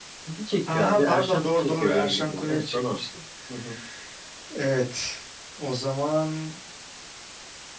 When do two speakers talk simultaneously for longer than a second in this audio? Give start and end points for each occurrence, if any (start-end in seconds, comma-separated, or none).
0.7-3.0